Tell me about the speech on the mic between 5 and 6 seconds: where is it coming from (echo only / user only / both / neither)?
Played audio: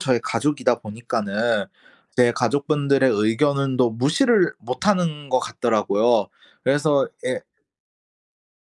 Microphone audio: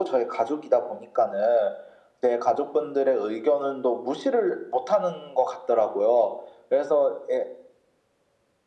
echo only